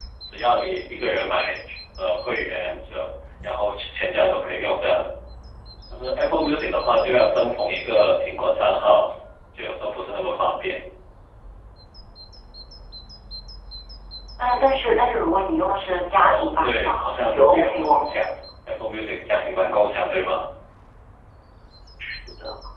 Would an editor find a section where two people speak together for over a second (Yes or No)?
Yes